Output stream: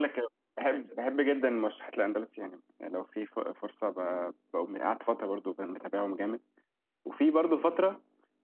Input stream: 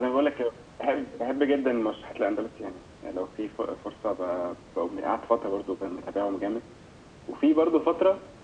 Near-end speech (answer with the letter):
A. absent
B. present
A